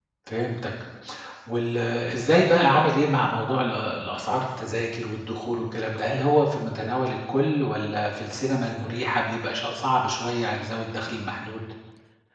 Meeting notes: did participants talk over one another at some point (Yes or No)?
No